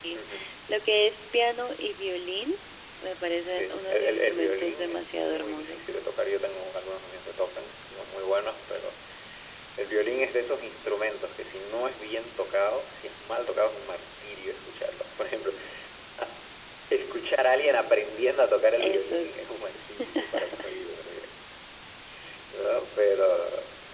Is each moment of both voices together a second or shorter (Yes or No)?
No